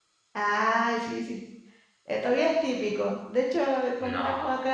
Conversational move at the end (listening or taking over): listening